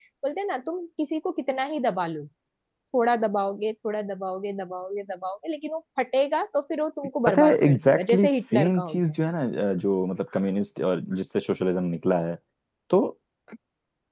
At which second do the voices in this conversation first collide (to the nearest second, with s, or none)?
7 s